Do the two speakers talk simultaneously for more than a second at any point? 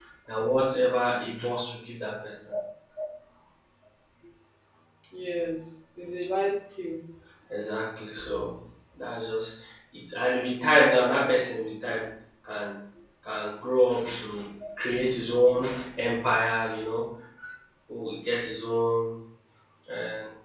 No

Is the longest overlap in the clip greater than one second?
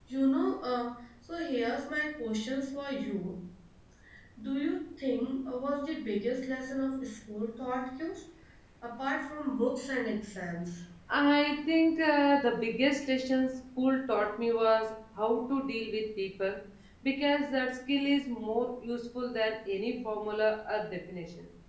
No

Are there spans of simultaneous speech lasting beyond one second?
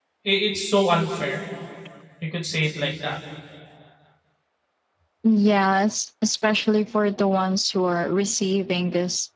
No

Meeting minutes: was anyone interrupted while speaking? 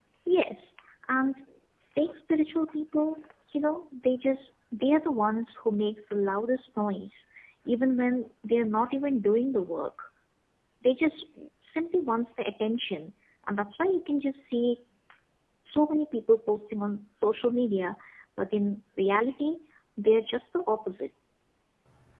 No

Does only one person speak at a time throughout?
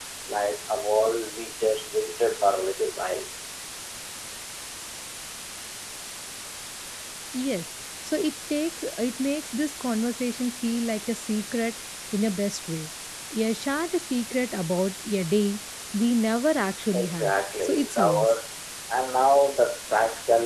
No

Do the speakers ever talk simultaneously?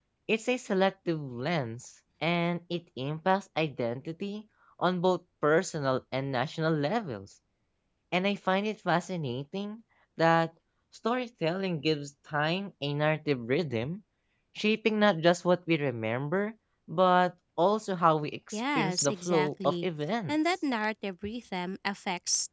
Yes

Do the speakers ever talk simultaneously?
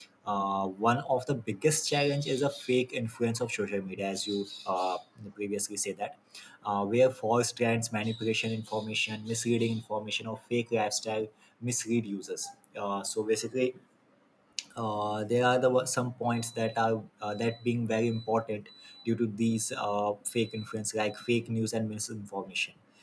No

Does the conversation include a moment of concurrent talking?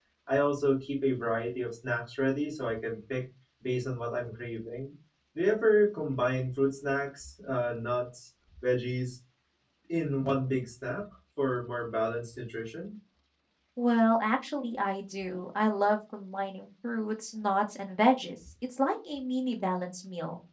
No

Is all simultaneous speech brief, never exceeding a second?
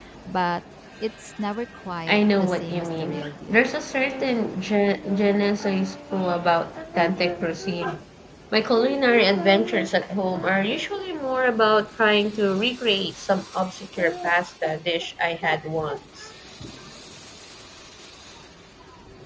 No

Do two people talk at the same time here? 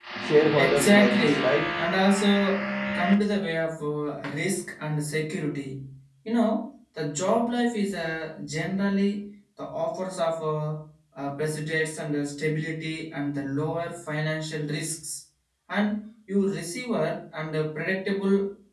Yes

